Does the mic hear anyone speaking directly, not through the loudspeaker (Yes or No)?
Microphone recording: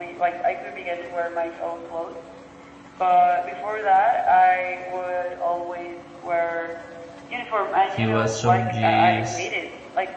Yes